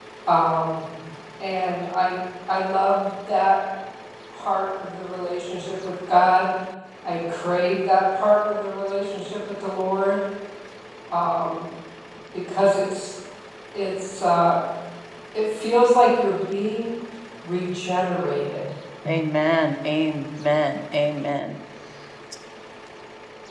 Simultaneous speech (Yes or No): No